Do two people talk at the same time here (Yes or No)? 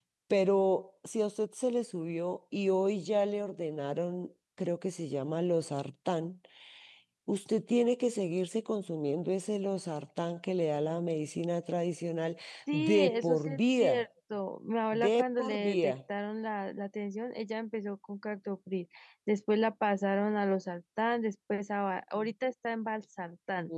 Yes